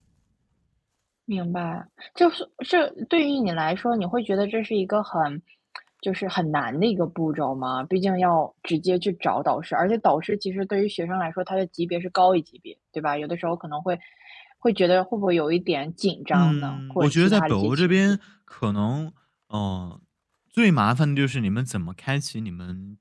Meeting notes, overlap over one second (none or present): present